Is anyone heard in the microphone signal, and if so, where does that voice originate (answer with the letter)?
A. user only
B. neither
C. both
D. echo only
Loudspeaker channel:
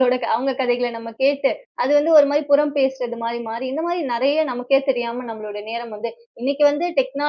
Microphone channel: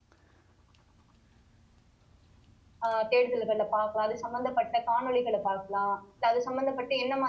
A